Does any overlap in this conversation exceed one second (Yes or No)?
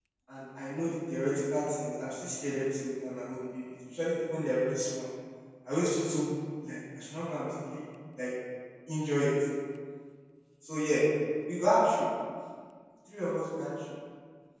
No